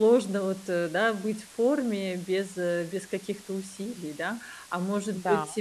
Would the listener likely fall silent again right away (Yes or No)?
Yes